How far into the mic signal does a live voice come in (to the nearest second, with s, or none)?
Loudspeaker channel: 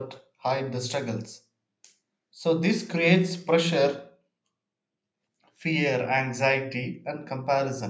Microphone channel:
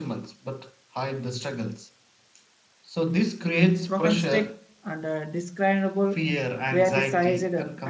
4 s